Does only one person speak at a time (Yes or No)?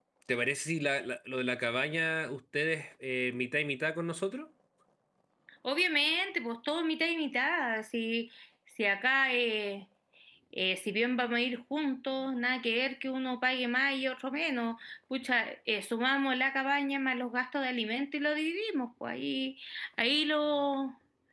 Yes